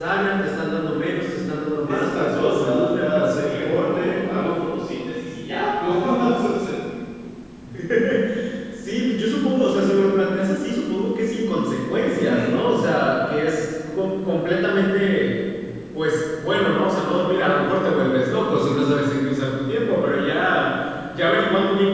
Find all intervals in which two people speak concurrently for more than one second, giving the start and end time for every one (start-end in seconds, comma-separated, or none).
1.9-4.3